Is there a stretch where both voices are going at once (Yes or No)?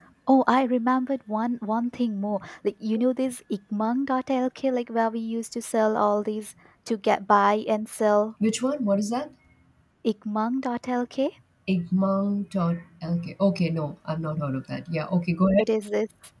No